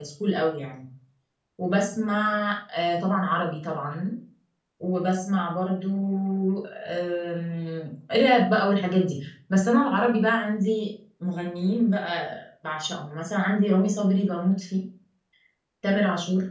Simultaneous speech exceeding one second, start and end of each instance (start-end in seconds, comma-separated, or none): none